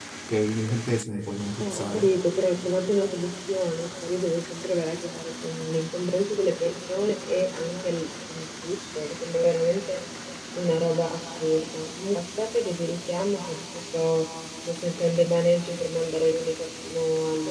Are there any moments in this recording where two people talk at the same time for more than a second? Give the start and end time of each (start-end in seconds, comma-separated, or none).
none